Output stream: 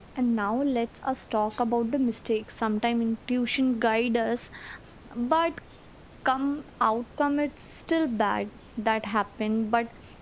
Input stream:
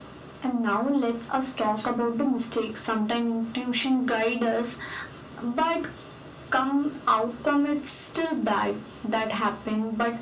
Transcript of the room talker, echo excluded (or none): none